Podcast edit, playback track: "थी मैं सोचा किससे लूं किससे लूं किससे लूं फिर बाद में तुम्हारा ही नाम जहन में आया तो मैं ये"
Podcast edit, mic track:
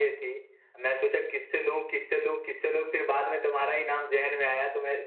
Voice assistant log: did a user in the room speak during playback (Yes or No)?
No